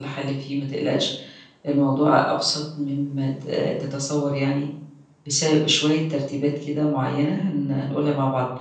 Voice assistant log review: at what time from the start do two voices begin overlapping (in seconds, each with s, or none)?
none